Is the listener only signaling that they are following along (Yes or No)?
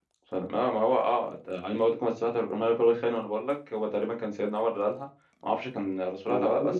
Yes